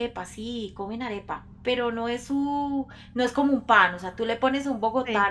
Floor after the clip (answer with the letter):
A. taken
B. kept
B